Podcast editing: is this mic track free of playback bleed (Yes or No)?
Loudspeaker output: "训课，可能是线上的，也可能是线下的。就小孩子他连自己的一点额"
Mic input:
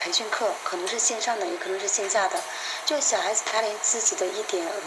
No